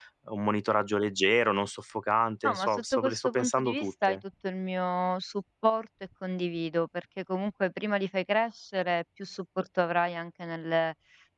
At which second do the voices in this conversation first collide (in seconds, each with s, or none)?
2.4 s